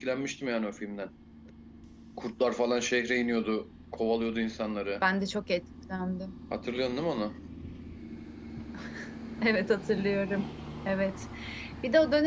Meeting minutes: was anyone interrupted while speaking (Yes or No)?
No